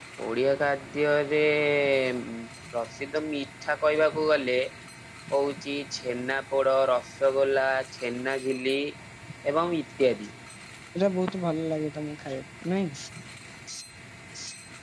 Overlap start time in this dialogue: none

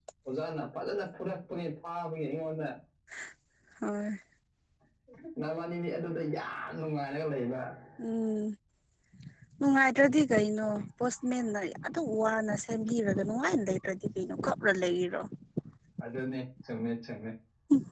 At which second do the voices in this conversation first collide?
none

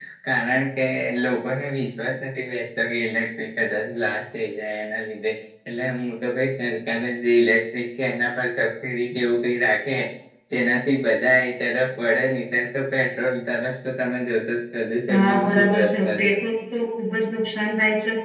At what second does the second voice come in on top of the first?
15.1 s

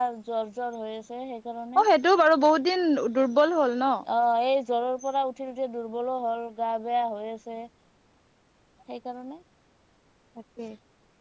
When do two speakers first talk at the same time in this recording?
none

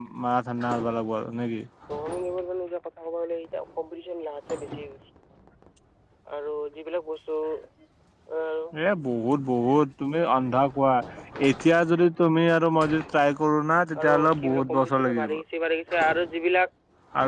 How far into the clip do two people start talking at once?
14.0 s

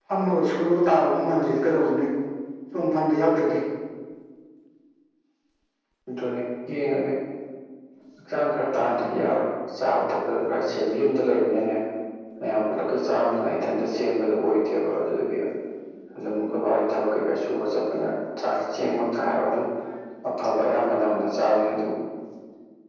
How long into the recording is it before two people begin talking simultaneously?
none

